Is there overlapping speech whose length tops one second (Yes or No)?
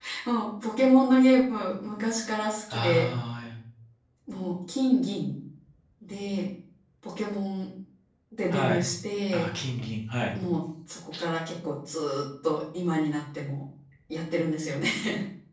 No